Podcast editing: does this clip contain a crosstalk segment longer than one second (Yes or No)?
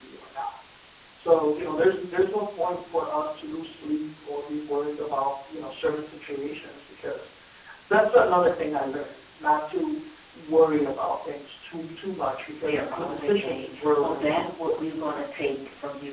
Yes